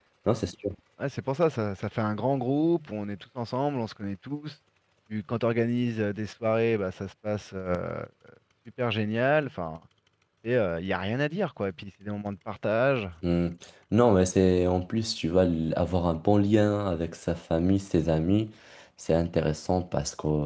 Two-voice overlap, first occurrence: none

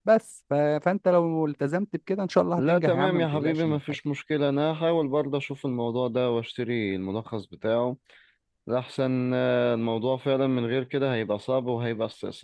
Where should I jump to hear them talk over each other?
2.6 s

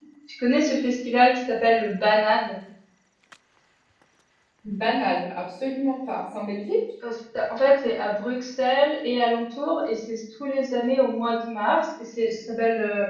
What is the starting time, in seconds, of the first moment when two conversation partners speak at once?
none

